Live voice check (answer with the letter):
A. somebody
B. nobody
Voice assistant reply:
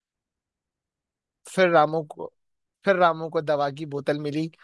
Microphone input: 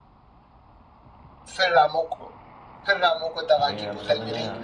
A